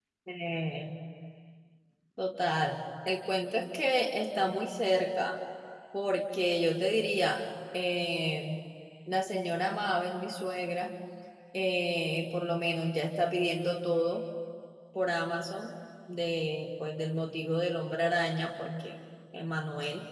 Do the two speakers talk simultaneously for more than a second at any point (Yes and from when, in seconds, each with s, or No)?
No